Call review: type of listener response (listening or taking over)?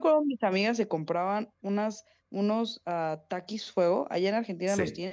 taking over